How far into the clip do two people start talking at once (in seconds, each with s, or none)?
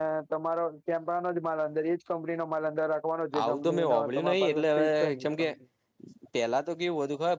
3.3 s